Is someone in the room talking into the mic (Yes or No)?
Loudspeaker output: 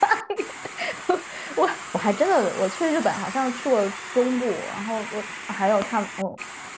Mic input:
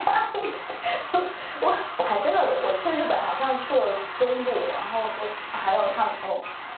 No